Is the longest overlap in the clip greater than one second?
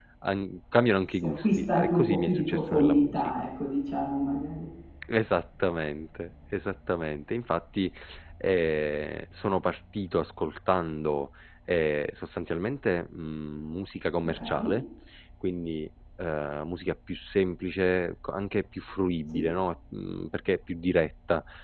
Yes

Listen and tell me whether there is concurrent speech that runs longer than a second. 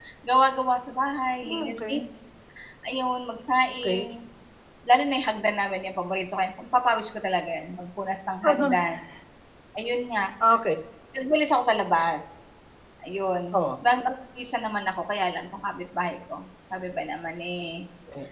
No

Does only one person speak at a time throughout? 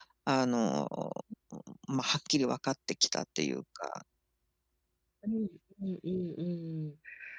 Yes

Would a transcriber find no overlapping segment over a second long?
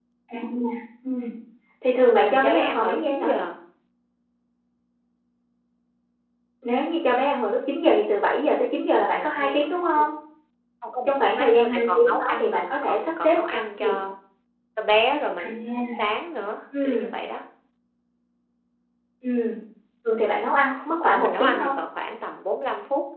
No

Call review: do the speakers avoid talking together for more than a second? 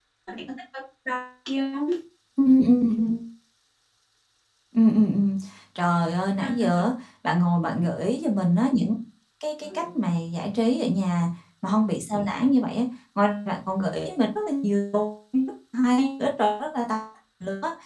Yes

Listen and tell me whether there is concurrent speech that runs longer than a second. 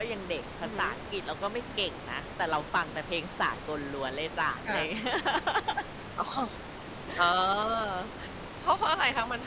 No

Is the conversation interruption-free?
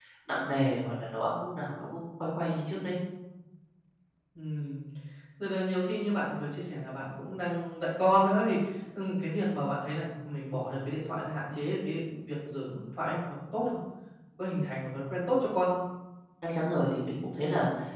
Yes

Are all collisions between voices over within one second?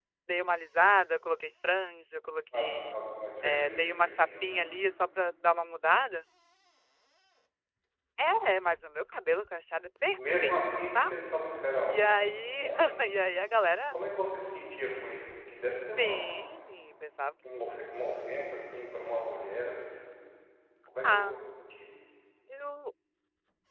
No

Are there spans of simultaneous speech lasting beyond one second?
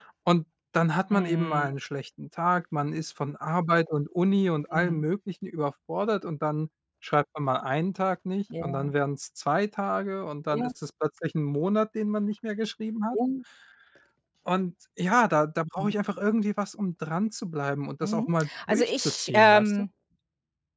Yes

